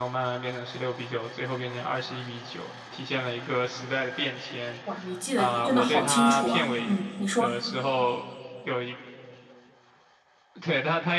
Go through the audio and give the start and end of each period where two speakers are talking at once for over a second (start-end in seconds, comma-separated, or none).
5.4-6.9